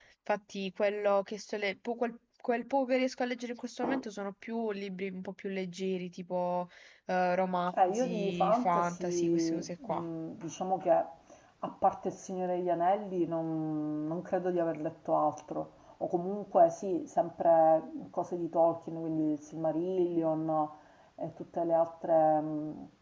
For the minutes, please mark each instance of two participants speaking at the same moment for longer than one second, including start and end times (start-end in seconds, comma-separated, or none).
7.7-10.0